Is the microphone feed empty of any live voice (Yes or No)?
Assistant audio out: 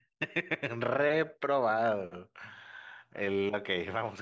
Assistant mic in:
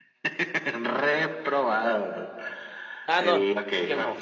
No